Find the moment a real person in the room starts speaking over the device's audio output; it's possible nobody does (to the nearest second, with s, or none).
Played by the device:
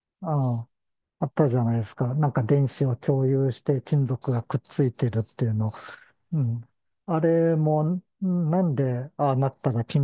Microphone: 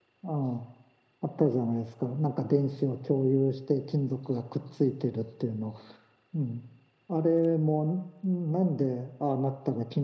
none